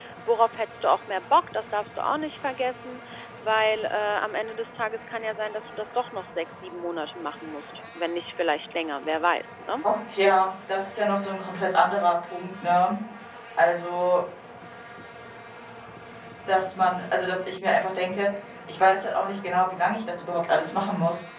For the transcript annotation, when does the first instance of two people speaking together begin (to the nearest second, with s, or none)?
none